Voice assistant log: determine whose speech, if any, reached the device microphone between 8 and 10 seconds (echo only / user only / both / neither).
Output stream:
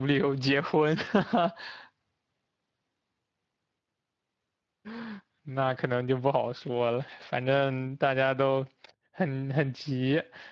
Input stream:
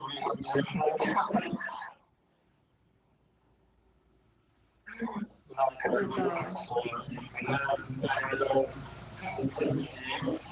echo only